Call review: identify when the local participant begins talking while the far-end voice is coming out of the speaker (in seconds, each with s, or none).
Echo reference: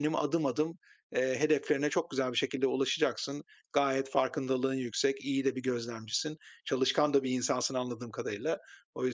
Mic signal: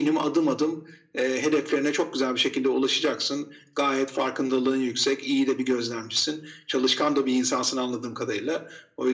none